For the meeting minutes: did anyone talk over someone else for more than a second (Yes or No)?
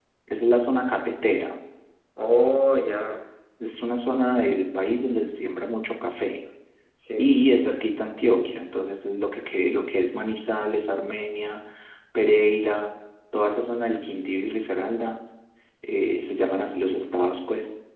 No